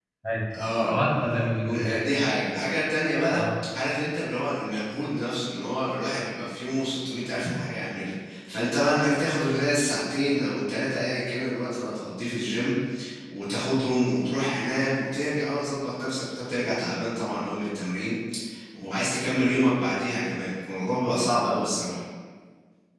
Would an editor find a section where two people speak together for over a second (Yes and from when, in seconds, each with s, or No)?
No